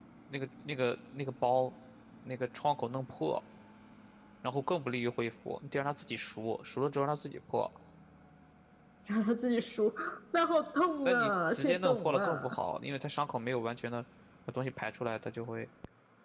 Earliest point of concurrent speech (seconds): 11.1 s

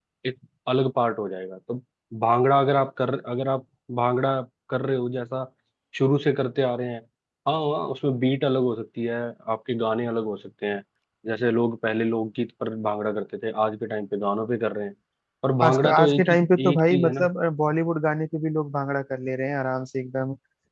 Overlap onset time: 15.6 s

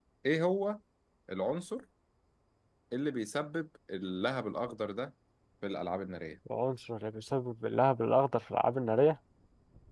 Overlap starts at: none

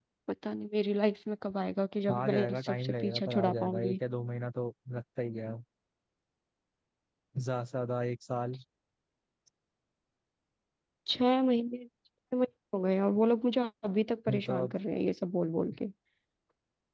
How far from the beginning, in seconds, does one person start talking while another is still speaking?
2.1 s

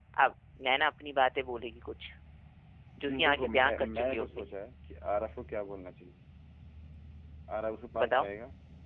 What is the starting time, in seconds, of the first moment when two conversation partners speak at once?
3.2 s

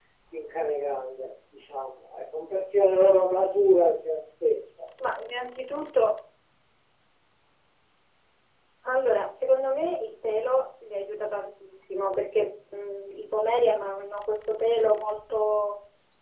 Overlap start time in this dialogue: none

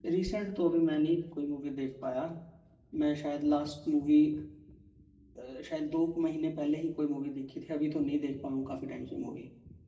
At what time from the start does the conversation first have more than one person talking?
none

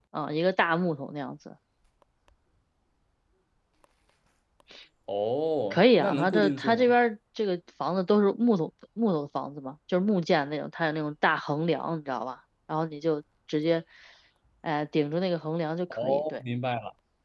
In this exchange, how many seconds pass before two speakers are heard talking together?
5.7 s

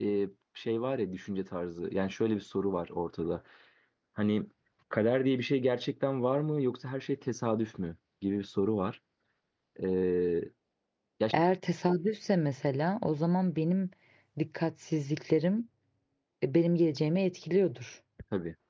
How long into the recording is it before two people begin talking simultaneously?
none

